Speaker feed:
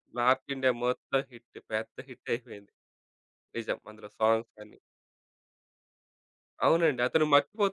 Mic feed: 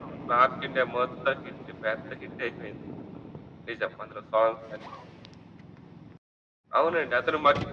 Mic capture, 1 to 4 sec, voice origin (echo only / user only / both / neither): echo only